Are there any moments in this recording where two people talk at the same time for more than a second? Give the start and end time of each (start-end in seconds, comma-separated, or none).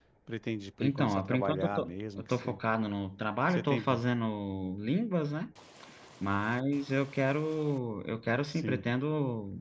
0.8-2.5